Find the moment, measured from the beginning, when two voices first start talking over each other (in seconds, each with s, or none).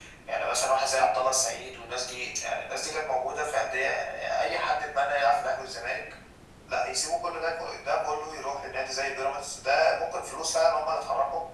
none